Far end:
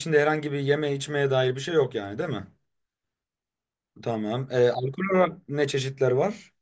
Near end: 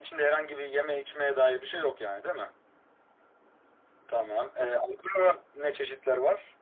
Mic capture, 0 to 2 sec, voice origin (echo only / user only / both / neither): echo only